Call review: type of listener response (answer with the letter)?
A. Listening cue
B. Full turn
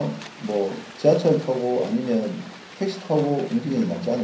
B